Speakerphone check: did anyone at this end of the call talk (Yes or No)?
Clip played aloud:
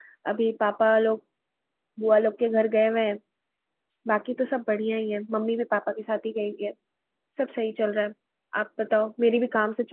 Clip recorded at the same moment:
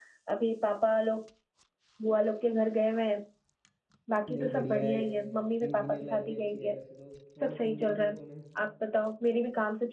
Yes